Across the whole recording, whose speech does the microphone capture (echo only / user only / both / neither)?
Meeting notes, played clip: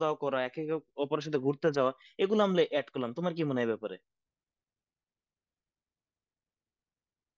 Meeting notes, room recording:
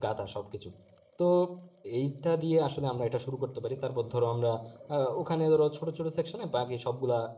user only